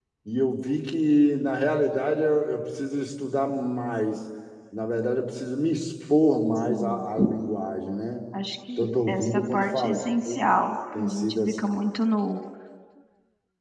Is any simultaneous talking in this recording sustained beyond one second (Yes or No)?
Yes